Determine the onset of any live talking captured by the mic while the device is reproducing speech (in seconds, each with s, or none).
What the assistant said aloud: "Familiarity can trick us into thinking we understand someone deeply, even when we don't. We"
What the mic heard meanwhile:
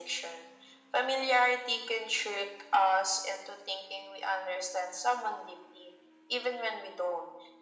none